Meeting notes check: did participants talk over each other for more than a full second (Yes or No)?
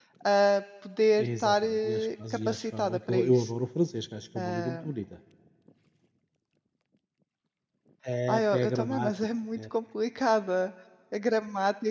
Yes